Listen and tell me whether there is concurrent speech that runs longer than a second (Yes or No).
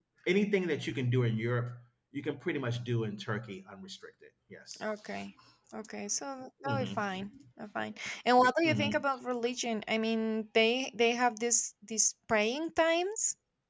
No